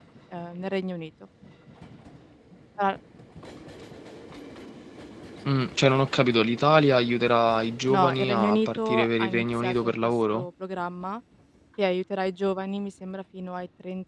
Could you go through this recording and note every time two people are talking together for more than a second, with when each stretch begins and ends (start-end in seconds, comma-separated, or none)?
7.9-10.4